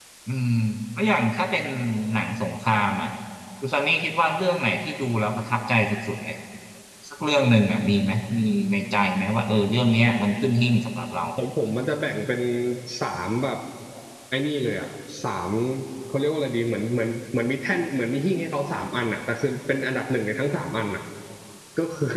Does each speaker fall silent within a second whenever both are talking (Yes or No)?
Yes